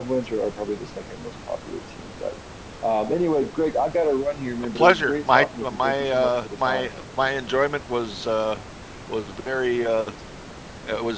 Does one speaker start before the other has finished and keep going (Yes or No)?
Yes